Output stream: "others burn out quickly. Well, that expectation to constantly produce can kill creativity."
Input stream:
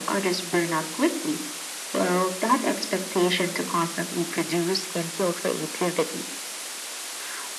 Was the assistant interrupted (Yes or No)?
No